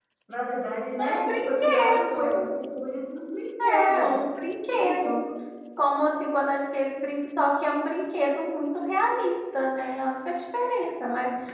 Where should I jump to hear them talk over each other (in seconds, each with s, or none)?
1.0 s